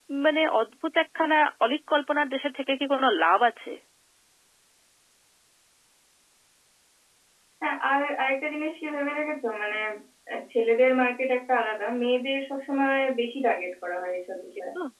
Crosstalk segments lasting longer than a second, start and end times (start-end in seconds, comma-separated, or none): none